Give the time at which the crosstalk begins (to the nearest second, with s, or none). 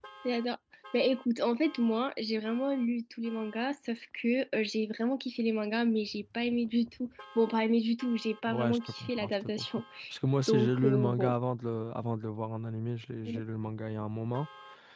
8 s